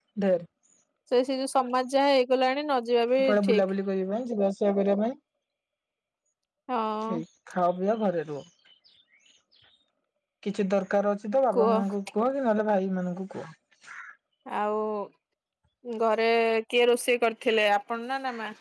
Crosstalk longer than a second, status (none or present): none